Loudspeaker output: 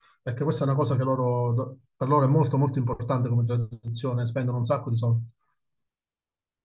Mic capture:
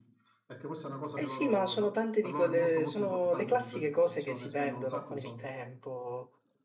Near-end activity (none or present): present